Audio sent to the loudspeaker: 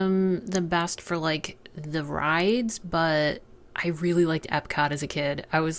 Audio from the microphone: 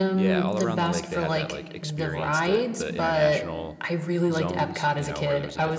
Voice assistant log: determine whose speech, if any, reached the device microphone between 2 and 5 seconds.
both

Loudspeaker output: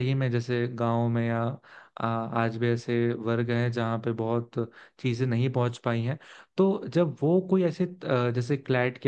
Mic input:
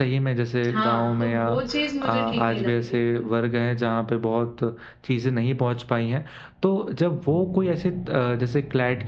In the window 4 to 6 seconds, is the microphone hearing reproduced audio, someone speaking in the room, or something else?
echo only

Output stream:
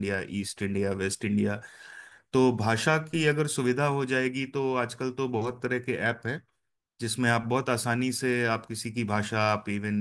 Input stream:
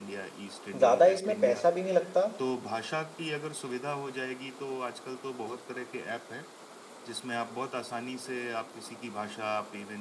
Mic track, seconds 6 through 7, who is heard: echo only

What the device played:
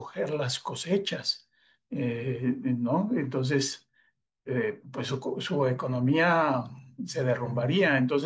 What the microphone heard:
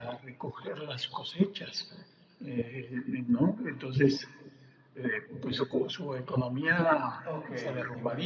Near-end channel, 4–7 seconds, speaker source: echo only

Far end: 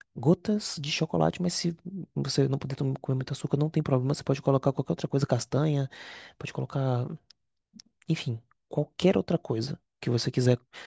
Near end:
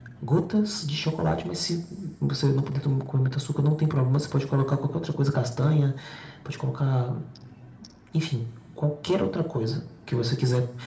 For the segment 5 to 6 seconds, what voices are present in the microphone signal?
echo only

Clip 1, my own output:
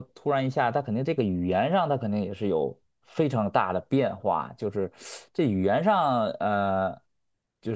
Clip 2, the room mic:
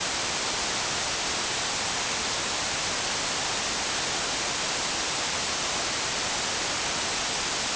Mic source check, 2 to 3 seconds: neither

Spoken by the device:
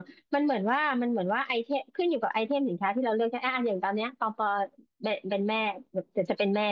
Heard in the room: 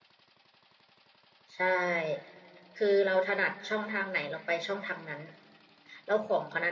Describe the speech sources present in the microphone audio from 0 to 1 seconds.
neither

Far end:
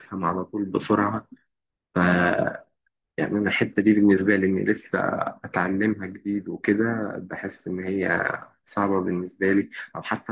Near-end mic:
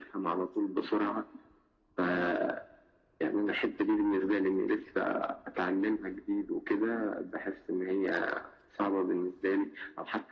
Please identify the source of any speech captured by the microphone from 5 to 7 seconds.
echo only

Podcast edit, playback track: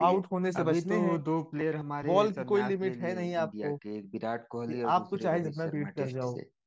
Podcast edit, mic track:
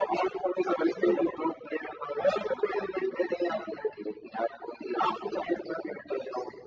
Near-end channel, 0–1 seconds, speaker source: echo only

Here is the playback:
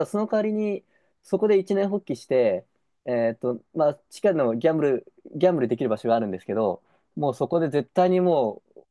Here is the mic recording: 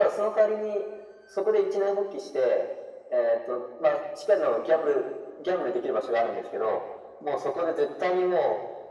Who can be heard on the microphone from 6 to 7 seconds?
echo only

